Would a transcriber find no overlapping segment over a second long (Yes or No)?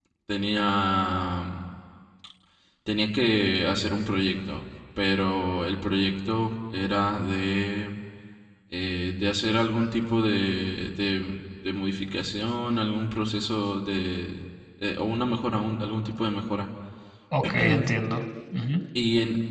Yes